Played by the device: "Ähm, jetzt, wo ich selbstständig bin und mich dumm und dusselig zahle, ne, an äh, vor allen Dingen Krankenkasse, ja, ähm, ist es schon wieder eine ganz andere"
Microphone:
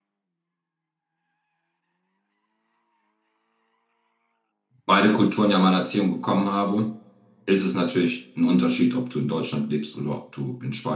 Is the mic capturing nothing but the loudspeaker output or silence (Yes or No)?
No